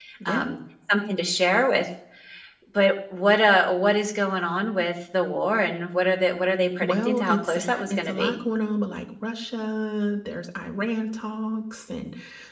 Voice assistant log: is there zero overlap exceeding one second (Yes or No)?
No